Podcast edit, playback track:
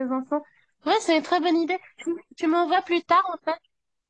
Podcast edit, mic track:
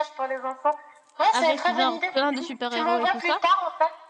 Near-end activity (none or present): present